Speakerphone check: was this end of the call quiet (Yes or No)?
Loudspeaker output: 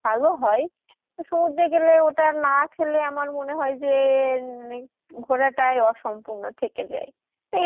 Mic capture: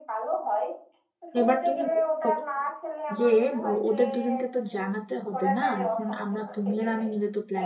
No